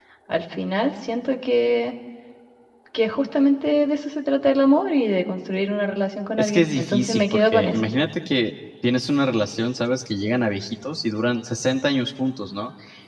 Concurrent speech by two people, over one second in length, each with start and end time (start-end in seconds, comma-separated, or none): 6.4-7.8